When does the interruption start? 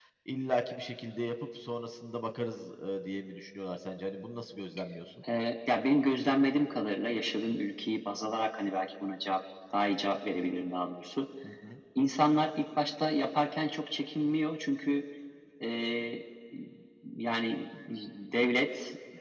none

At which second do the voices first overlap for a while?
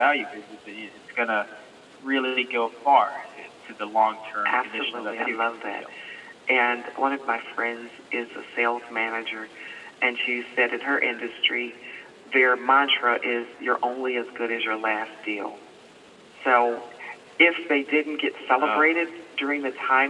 4.5 s

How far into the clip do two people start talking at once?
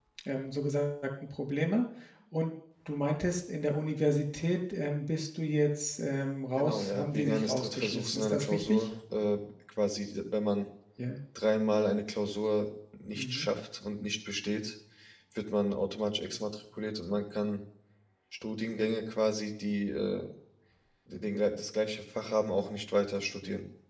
6.6 s

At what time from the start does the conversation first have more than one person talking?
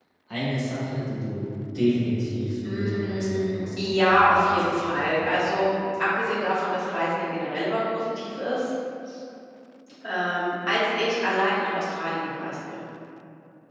2.6 s

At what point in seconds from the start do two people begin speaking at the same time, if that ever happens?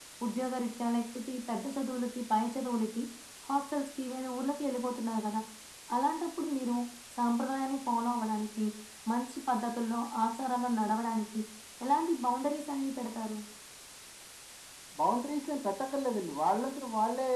none

